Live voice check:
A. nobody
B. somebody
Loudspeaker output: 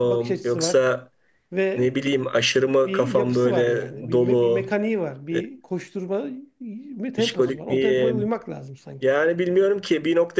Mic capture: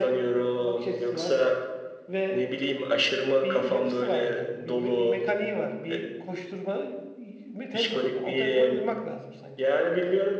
A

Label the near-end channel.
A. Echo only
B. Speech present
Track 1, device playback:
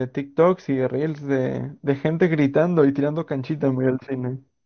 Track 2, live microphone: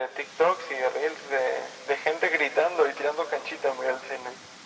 A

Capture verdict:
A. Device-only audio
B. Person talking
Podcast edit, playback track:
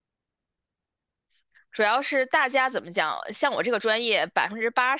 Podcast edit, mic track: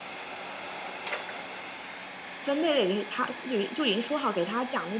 B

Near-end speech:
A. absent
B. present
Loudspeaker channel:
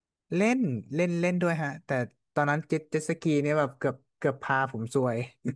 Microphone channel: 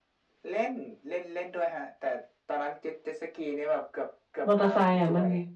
B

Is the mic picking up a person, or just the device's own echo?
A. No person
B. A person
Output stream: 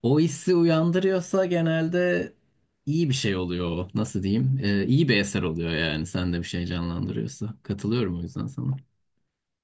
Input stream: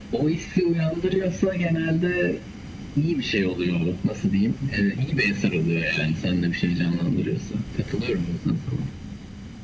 A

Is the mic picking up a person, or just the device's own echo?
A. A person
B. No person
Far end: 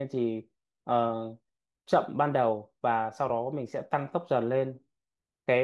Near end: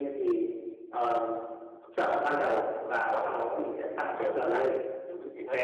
A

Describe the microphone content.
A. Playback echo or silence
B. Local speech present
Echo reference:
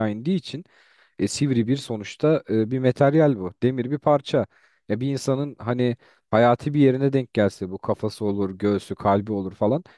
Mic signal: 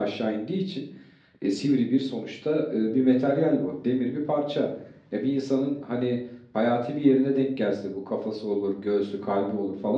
A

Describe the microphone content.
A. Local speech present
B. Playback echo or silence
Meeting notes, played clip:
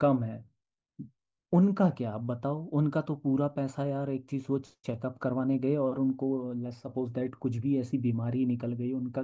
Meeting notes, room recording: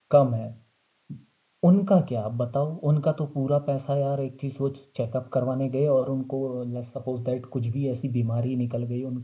B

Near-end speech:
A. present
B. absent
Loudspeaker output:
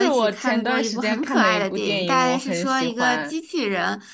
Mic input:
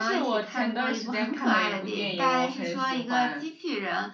B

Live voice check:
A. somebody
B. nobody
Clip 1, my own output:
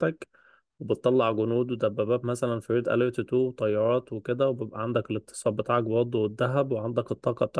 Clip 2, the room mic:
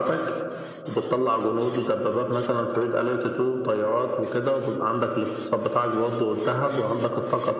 B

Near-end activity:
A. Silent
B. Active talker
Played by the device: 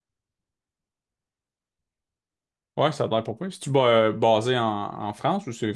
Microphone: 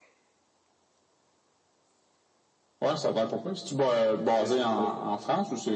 B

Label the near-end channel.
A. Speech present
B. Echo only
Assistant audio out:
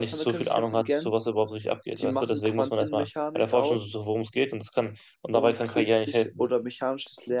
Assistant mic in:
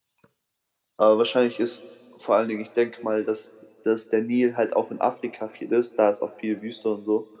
A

